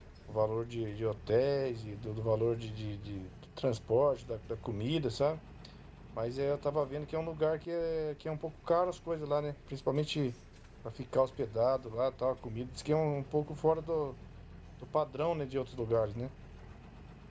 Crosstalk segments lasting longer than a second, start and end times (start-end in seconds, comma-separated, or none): none